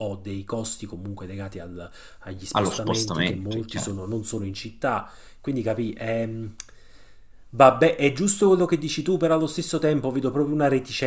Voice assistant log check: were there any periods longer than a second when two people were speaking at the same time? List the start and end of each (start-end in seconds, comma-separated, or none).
2.5-3.9